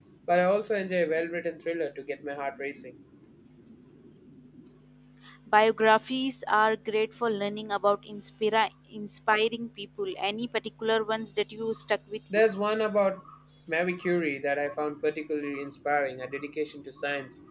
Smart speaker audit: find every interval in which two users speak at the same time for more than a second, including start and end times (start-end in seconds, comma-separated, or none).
none